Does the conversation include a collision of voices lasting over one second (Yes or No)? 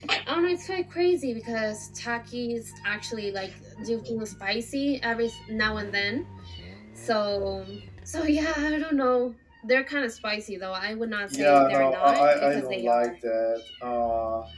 Yes